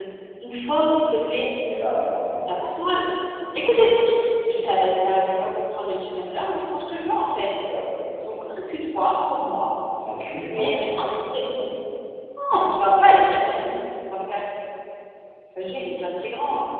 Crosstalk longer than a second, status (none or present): none